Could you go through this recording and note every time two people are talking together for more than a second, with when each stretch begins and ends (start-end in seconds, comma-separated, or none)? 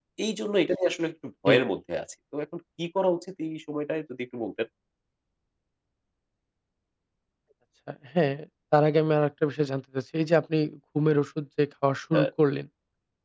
none